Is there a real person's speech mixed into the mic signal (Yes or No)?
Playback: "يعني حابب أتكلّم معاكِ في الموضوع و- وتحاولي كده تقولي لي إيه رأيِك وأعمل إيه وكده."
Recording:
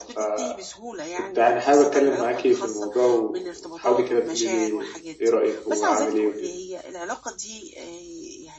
Yes